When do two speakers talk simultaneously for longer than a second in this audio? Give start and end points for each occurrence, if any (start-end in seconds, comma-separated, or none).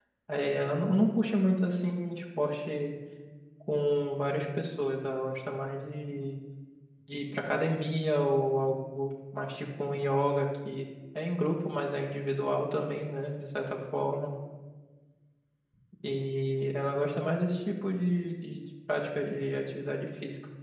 none